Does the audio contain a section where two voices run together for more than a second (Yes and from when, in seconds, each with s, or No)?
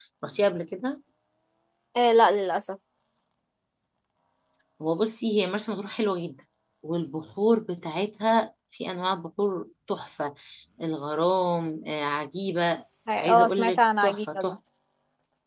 Yes, from 13.1 s